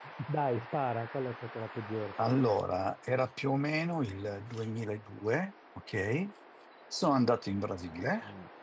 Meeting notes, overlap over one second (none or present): none